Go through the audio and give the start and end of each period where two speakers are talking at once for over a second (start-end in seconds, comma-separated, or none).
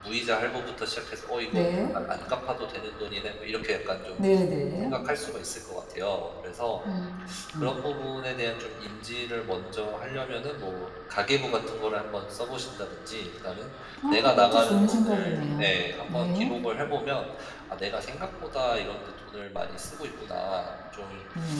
14.1-15.7